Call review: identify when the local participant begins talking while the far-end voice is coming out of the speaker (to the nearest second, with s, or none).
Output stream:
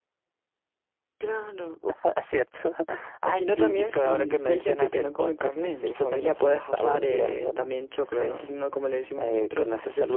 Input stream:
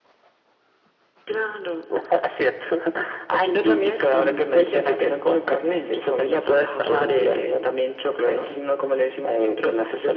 none